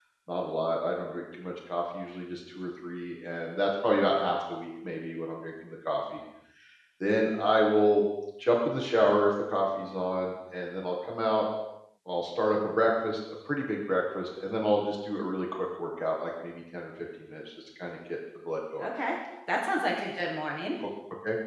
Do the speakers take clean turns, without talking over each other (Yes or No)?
Yes